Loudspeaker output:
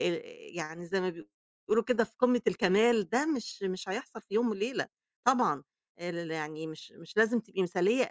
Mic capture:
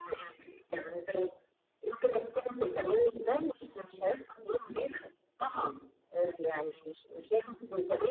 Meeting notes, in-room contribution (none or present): none